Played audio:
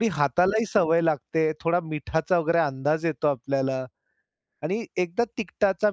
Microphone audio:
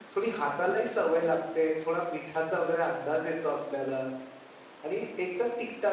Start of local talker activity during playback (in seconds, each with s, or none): none